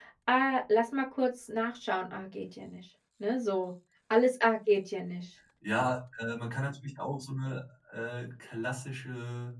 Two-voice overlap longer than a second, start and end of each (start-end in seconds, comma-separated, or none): none